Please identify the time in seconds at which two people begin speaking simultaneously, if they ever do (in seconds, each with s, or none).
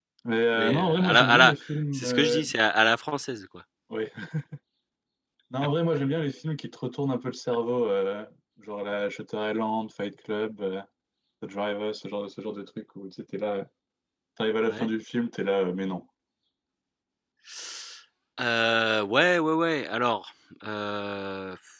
0.5 s